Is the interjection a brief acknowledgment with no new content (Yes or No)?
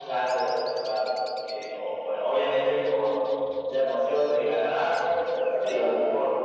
Yes